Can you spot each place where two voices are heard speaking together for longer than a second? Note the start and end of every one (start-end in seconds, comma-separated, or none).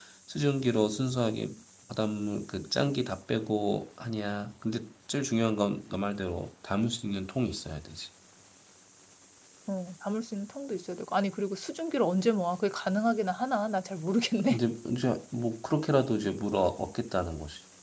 none